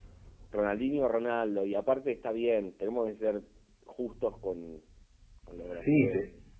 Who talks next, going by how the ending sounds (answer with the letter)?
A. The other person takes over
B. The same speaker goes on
A